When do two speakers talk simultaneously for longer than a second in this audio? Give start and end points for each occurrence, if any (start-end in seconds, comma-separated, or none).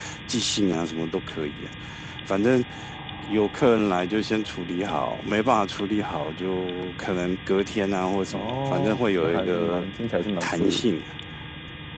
8.3-9.8